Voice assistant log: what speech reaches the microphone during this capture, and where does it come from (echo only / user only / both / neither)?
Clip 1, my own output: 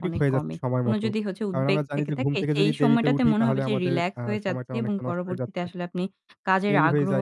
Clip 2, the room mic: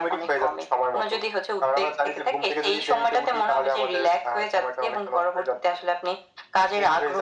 echo only